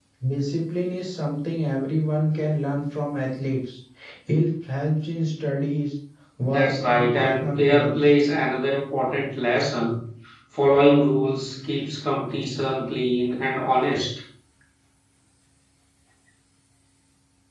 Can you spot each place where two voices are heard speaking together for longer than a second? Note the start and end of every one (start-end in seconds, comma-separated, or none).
6.5-8.0